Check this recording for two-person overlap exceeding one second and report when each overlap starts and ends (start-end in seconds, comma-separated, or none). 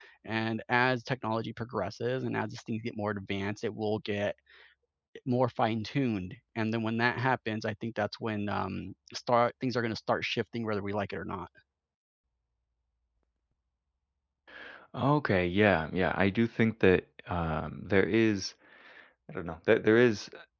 none